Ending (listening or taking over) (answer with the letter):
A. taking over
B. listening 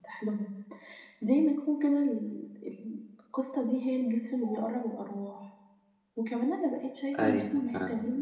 B